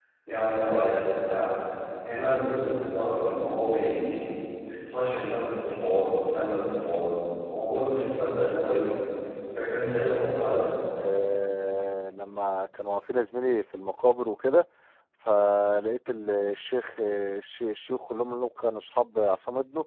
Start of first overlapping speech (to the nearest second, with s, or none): none